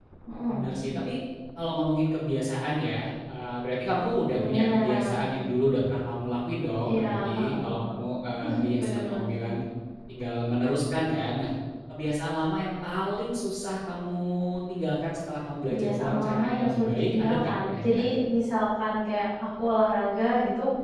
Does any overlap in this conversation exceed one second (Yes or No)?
Yes